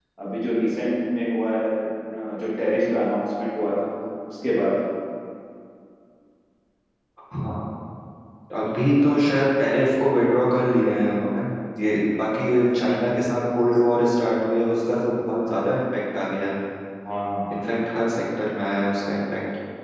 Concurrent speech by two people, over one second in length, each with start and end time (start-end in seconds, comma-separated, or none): none